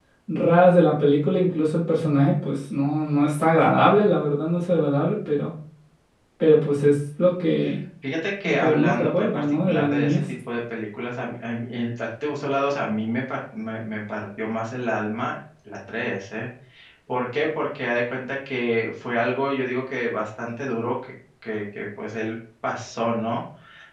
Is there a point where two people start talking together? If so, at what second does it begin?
8.4 s

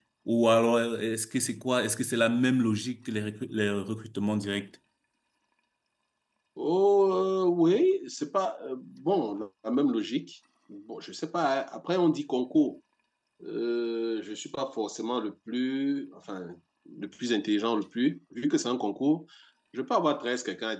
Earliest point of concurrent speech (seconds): none

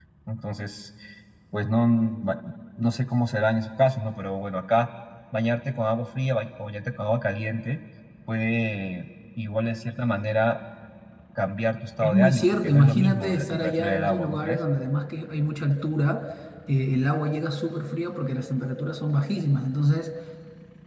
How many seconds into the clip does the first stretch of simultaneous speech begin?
12.0 s

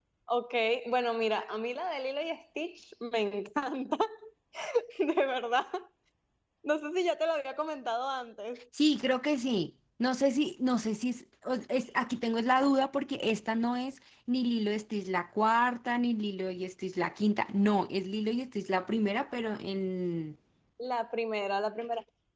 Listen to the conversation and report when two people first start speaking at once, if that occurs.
none

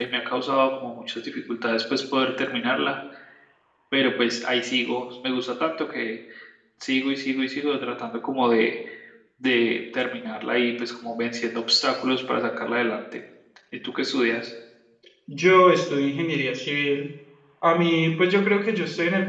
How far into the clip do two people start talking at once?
none

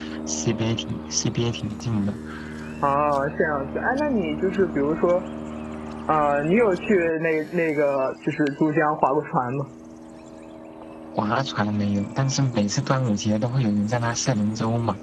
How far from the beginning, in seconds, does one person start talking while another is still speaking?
none

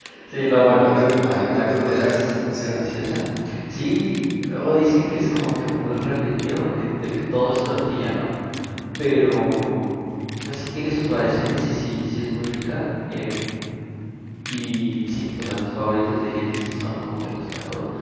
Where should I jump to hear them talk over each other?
0.5 s

